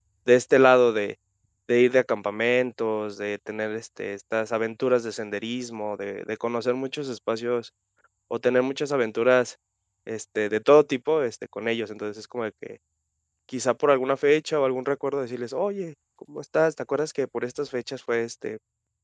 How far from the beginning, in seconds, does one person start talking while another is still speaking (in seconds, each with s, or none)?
none